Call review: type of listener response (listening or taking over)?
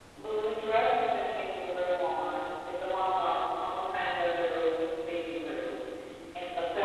listening